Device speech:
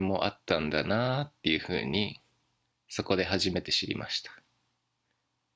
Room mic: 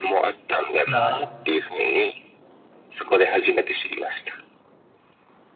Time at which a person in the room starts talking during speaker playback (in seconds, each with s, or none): 0.8 s